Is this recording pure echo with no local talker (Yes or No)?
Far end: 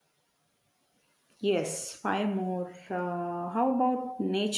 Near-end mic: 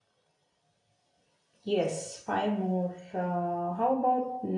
Yes